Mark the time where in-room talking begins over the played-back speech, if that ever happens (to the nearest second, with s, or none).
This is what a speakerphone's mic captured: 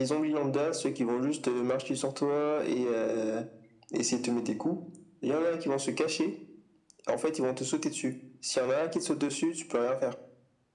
none